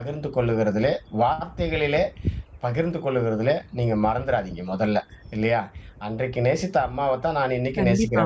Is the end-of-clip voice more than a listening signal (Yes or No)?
No